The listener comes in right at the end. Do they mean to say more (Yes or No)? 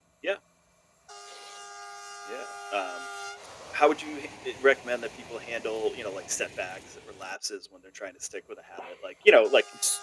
No